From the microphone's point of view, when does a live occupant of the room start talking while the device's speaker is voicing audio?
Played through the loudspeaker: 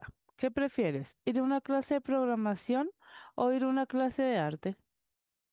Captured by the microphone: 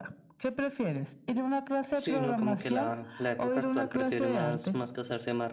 1.9 s

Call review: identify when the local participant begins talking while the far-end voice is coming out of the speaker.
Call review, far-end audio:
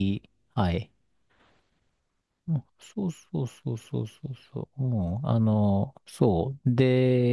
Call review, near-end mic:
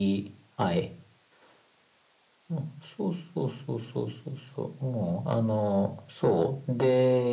none

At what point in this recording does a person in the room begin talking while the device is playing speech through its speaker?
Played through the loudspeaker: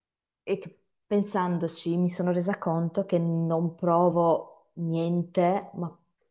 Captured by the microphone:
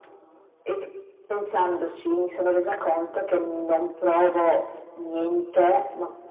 none

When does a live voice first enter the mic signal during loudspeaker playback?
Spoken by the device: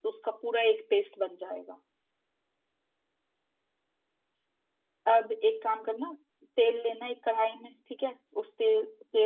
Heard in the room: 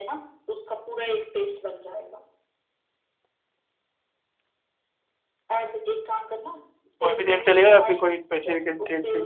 7.0 s

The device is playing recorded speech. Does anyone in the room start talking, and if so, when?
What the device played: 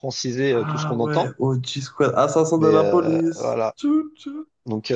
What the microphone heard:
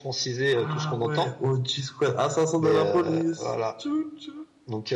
none

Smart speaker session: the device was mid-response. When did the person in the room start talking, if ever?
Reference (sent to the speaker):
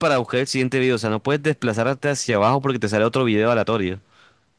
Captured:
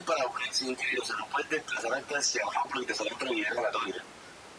none

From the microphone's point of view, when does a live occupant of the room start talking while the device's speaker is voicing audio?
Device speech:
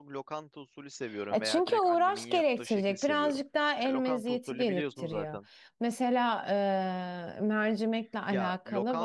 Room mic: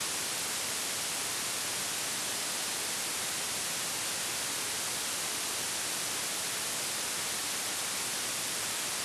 none

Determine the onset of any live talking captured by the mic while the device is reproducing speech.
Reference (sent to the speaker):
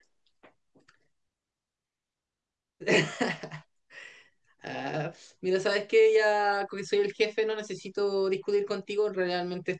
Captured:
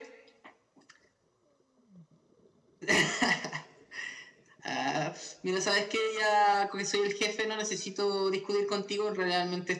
none

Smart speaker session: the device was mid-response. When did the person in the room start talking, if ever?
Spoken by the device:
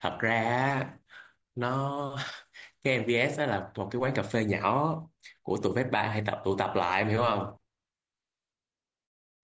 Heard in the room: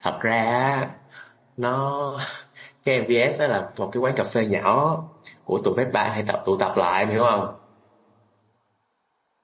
none

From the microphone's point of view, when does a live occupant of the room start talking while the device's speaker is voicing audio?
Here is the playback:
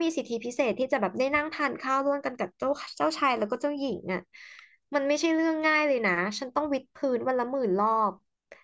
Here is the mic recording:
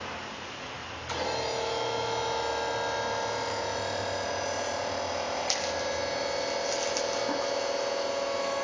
none

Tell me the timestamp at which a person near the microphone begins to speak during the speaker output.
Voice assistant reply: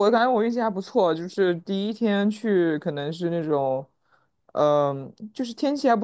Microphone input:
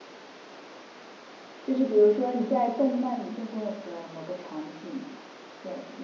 1.6 s

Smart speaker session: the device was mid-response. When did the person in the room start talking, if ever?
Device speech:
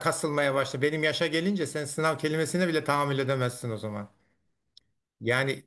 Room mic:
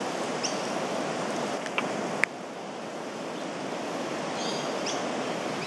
none

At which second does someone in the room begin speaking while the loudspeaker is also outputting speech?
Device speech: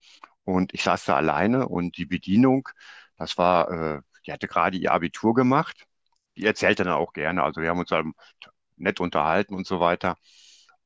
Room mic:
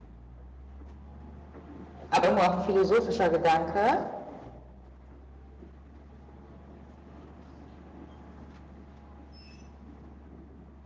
2.1 s

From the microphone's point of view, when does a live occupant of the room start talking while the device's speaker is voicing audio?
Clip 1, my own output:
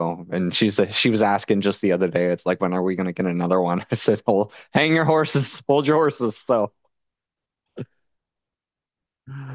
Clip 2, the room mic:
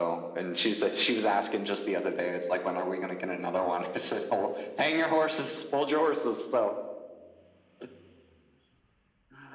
none

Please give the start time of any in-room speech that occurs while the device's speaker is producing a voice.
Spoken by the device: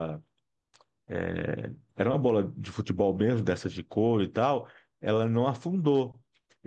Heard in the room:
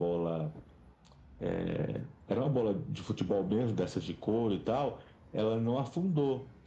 none

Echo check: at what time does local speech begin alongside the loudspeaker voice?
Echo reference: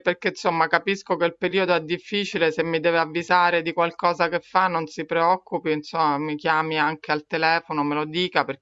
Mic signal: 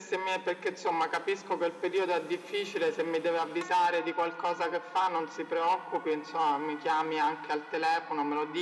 none

